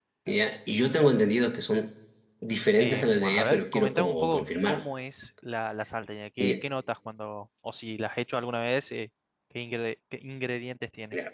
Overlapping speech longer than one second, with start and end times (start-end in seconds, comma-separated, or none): 2.8-4.8